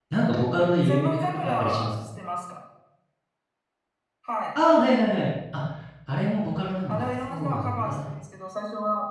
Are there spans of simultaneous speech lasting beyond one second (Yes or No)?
Yes